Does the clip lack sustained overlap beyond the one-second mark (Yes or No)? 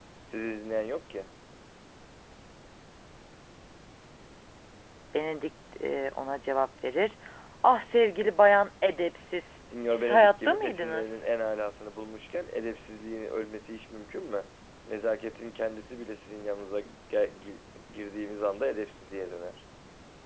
No